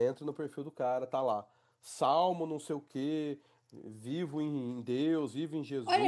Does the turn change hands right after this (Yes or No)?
Yes